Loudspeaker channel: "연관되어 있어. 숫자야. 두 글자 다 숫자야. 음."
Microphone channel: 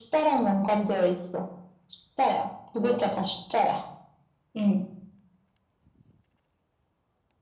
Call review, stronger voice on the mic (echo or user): echo